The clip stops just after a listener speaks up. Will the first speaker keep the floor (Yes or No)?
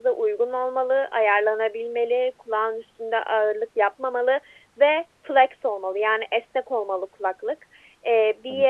Yes